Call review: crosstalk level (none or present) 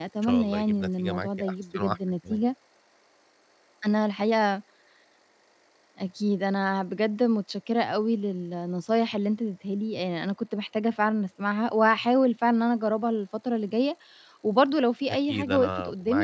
present